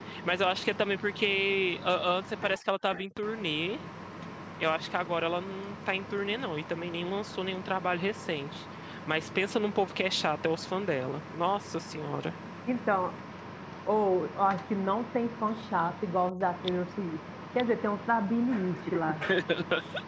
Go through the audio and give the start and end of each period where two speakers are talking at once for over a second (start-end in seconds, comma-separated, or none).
none